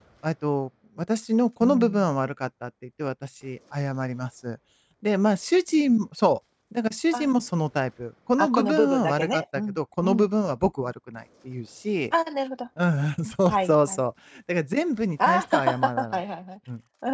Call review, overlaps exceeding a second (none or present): present